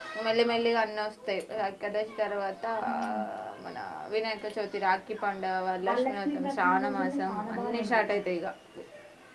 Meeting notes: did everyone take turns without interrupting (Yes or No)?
No